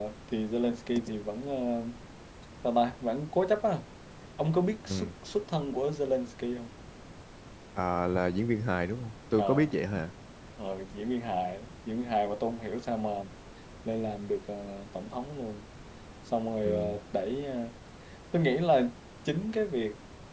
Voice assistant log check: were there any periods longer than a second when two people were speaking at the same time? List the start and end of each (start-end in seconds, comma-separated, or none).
none